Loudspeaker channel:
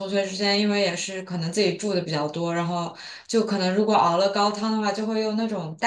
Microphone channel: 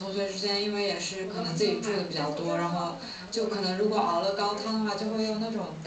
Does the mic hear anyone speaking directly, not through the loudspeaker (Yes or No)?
Yes